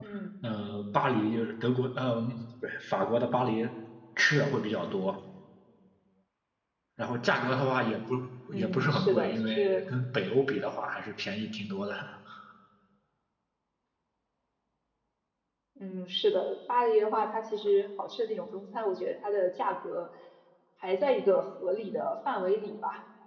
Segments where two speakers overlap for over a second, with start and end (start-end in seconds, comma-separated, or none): 8.5-9.8